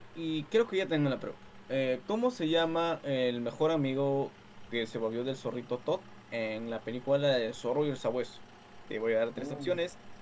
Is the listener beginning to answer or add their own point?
No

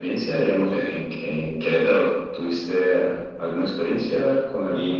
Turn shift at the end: Yes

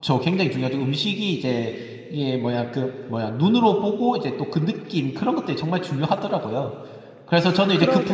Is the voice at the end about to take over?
No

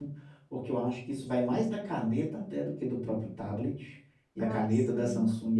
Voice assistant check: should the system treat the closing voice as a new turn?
No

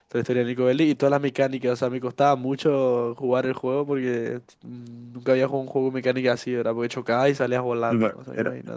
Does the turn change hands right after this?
Yes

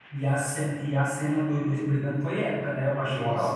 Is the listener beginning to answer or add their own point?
Yes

